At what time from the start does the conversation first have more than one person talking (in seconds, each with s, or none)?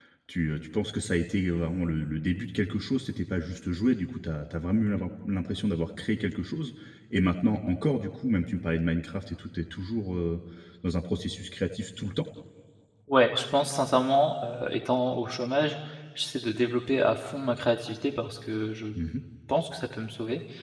none